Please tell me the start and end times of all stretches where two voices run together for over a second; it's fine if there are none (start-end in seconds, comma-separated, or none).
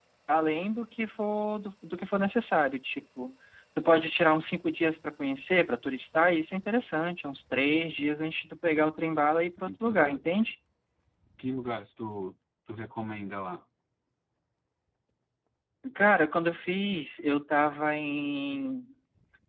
none